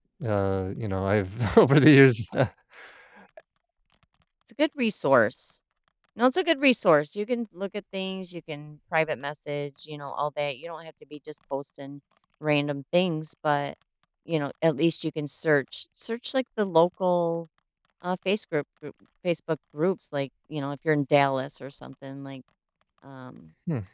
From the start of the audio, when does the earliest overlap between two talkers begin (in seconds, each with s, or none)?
none